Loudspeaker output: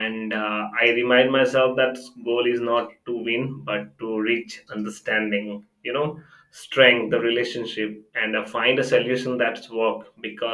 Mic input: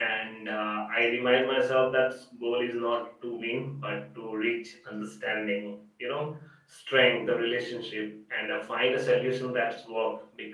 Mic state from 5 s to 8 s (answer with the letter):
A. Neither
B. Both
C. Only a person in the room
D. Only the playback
D